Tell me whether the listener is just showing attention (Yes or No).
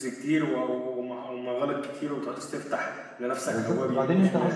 No